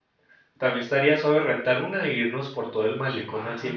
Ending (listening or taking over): taking over